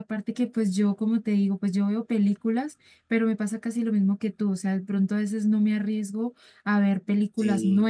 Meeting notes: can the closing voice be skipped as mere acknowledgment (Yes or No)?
Yes